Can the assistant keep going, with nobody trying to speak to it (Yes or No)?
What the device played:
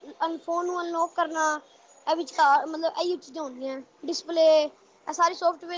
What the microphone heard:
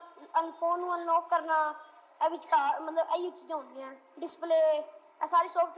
Yes